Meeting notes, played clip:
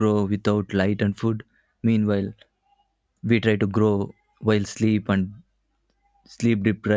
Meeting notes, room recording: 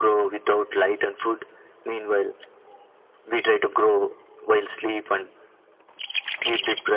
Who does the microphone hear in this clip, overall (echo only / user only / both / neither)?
echo only